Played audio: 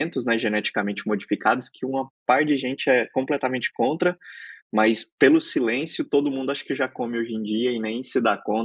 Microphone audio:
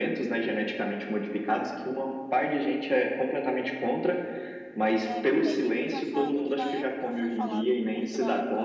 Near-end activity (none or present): present